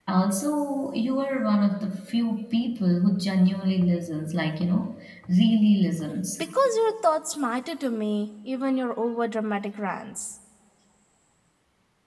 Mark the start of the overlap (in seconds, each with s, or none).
none